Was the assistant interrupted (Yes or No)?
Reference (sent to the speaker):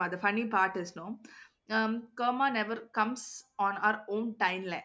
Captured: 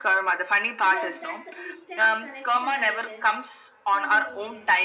Yes